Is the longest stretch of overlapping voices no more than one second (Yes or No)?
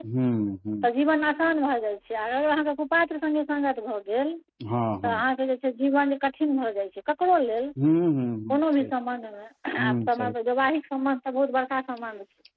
Yes